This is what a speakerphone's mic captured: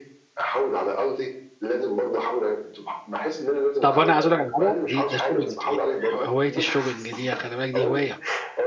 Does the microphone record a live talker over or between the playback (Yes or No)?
Yes